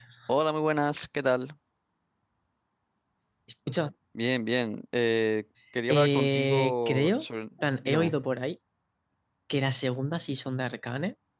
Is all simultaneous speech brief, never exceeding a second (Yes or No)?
No